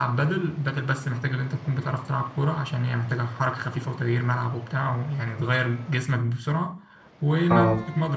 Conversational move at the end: listening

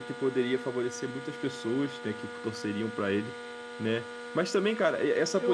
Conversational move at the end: listening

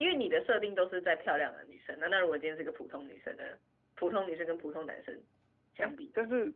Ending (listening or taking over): taking over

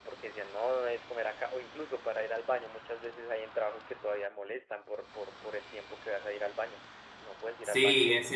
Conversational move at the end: taking over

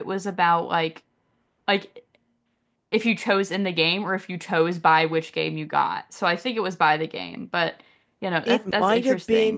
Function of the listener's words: taking over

